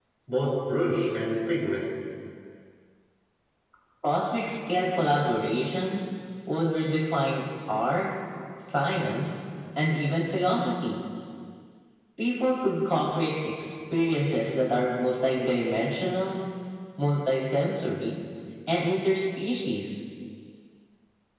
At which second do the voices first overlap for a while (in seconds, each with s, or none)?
none